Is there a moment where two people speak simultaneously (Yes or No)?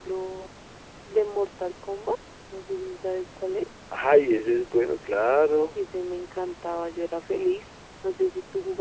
No